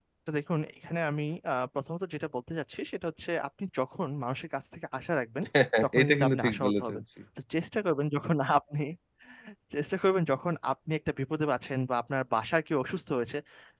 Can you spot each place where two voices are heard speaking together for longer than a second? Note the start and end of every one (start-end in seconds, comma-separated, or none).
5.8-7.0